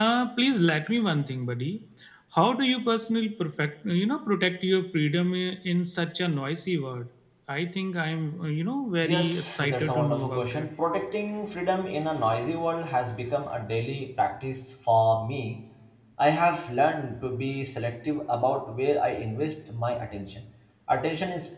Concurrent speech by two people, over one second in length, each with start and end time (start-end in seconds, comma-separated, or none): 9.0-10.7